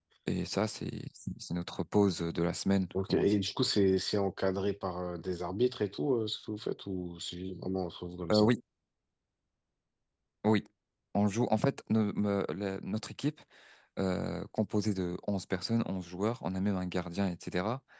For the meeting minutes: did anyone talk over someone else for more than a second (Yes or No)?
No